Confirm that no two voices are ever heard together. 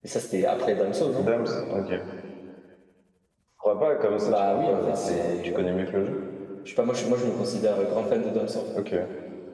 No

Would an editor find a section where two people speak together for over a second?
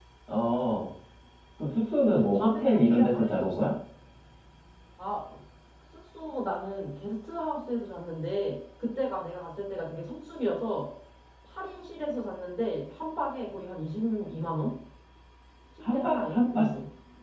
Yes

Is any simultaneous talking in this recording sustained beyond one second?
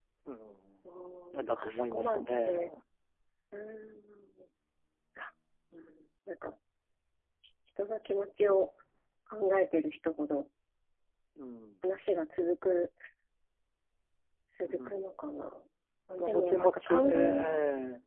Yes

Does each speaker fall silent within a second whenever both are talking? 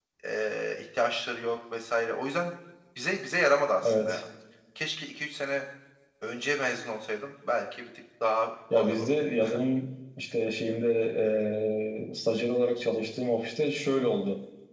Yes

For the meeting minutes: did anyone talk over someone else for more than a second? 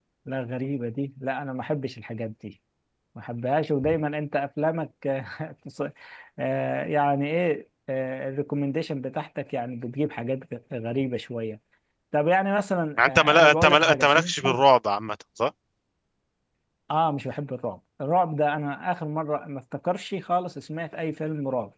Yes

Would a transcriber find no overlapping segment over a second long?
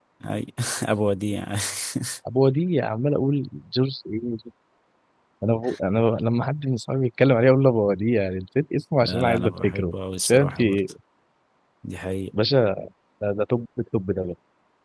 No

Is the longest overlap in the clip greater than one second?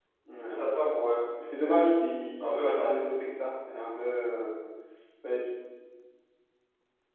No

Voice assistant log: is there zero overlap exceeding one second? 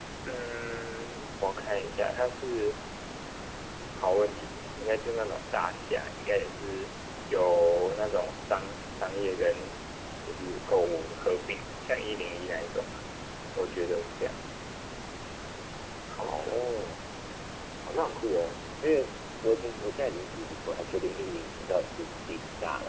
Yes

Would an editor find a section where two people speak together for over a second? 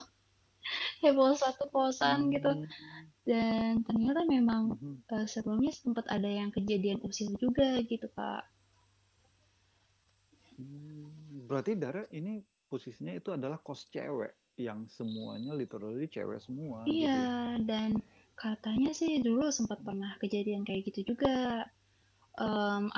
No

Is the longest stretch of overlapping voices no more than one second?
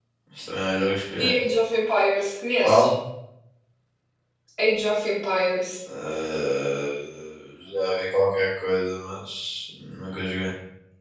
Yes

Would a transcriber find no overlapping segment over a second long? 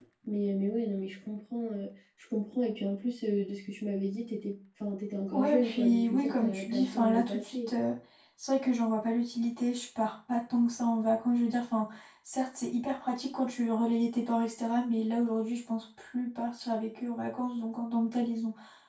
No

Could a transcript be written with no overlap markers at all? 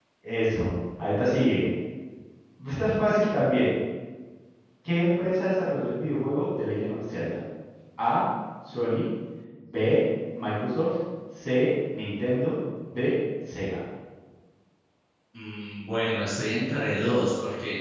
Yes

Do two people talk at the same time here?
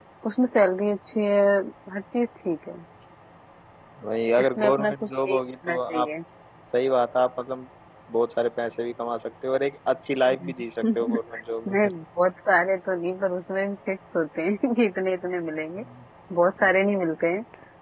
Yes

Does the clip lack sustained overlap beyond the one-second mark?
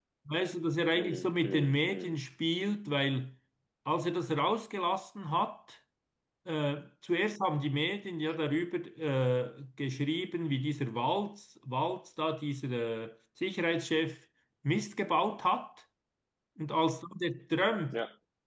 No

